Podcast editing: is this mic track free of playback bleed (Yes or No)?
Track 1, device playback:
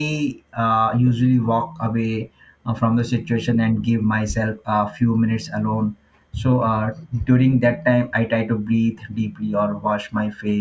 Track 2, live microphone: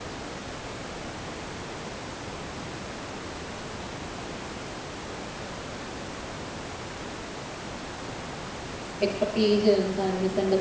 Yes